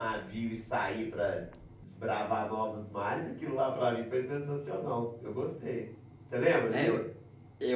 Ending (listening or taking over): taking over